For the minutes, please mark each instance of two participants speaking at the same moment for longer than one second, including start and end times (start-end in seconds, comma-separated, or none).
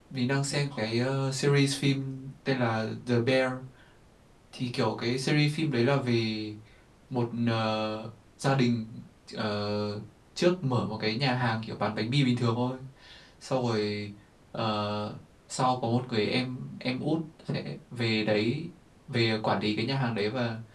none